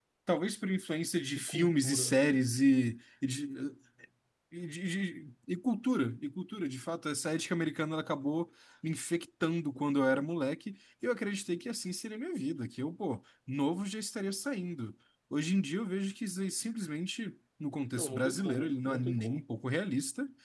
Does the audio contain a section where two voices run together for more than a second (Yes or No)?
Yes